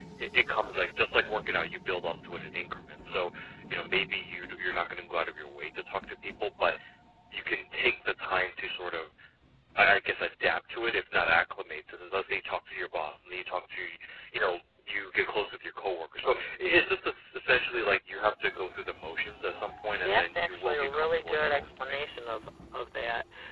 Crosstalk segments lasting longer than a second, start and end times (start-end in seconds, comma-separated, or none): 20.0-22.0